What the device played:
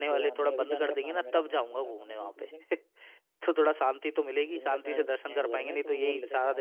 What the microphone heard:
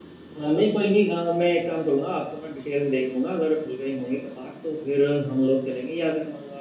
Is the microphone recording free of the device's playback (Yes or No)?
Yes